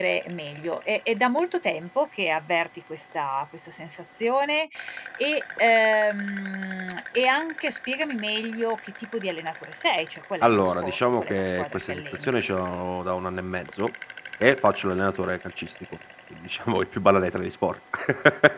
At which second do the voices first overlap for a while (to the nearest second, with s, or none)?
10 s